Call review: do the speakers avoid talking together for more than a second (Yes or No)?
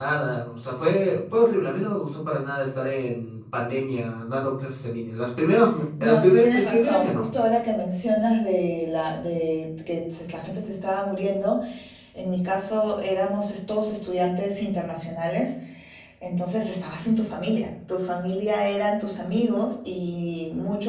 No